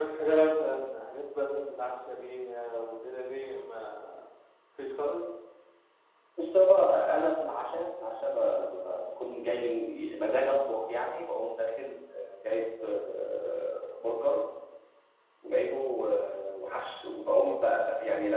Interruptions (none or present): none